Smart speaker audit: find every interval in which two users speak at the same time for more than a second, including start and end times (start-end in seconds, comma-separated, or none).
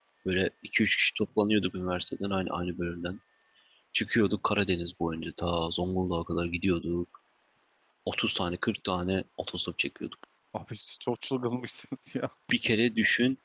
none